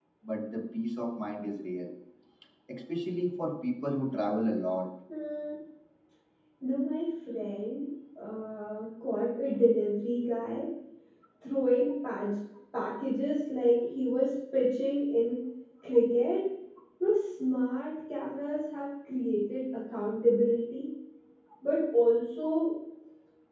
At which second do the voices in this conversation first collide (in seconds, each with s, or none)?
none